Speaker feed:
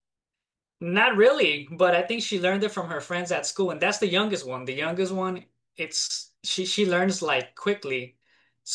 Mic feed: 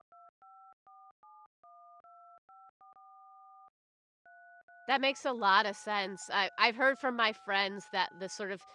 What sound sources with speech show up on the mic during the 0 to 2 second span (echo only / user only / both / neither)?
neither